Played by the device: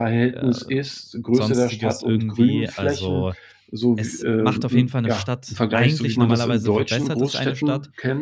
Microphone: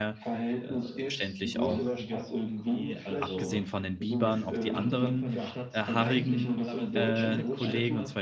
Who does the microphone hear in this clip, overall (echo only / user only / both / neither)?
both